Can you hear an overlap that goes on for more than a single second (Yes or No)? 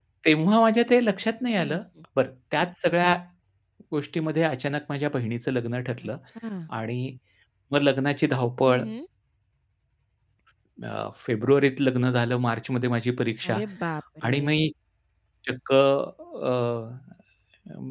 No